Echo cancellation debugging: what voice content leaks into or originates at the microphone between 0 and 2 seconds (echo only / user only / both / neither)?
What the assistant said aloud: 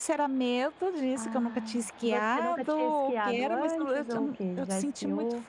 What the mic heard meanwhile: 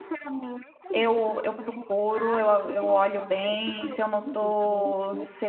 both